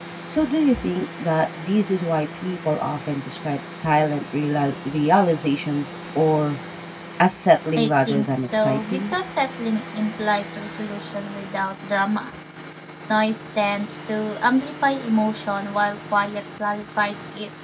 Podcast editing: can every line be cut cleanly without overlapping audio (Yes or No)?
No